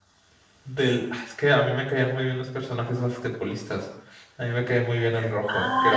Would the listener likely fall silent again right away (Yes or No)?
No